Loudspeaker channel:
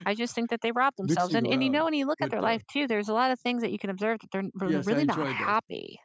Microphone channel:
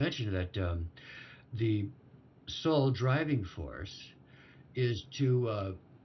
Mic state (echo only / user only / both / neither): user only